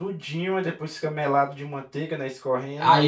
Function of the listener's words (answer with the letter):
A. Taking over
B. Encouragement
A